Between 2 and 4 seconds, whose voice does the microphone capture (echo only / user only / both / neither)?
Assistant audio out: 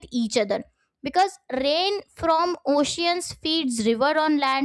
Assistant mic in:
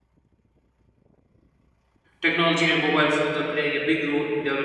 user only